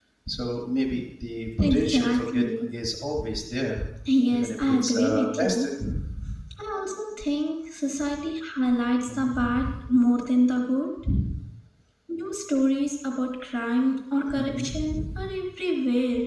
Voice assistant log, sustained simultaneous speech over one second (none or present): present